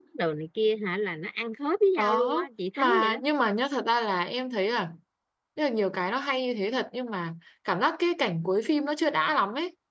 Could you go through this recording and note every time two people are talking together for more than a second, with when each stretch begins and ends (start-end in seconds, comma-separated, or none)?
none